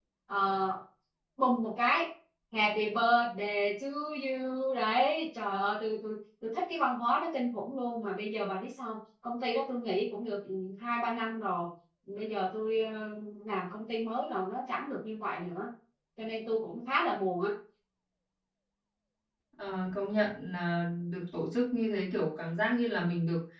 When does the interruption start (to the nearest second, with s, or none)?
none